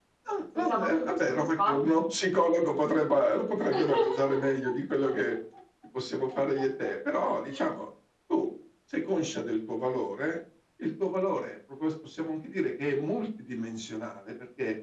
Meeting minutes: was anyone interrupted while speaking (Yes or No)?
Yes